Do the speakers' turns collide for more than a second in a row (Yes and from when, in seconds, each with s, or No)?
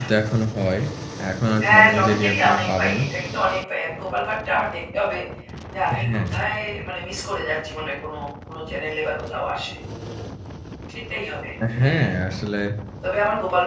Yes, from 1.6 s